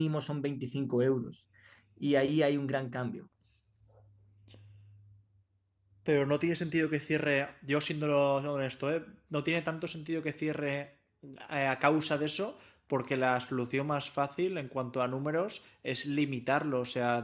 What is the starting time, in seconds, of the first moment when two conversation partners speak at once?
none

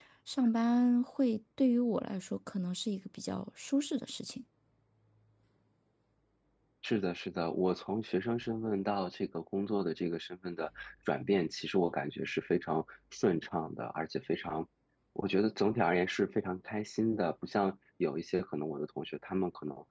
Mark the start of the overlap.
none

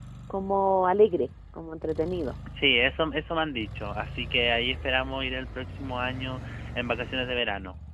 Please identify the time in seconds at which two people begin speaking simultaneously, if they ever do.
none

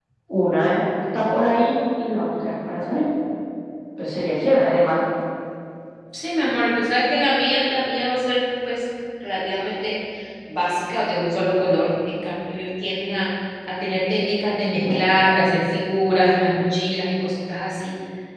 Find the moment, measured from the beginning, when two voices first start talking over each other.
none

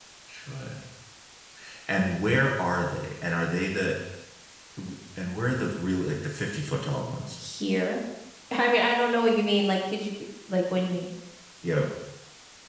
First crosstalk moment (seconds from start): none

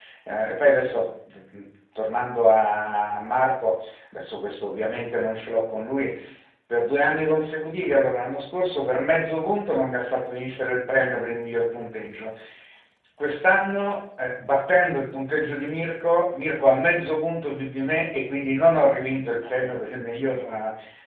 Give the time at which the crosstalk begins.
none

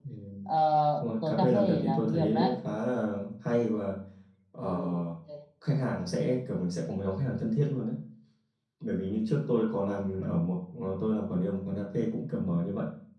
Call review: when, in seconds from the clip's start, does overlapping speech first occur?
1.0 s

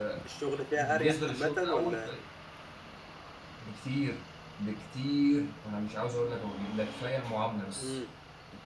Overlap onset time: 0.8 s

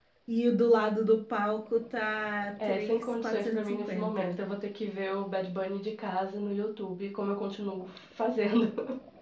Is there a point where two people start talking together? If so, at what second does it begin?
2.6 s

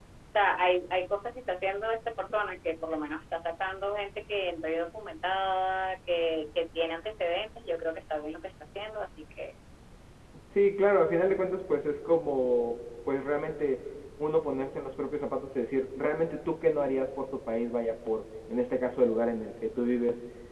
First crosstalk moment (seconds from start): none

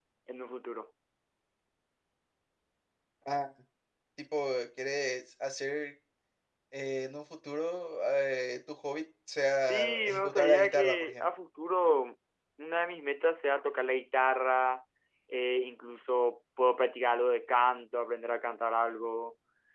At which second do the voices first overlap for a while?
9.6 s

